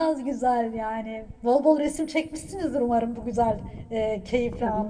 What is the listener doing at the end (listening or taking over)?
taking over